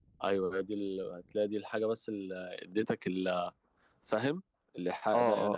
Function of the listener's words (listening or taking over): taking over